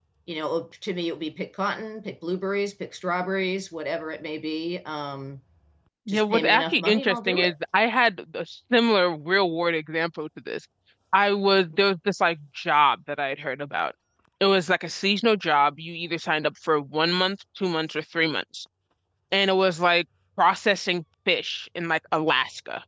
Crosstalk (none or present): present